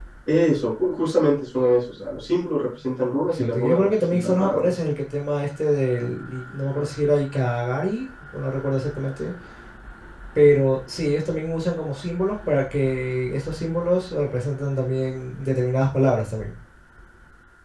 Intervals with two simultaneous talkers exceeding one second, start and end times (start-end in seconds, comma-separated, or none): 3.3-4.8